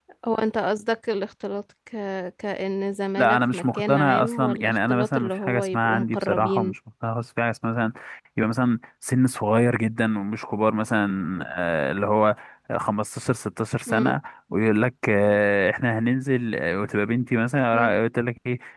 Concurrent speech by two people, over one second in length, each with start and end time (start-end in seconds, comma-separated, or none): 3.2-6.7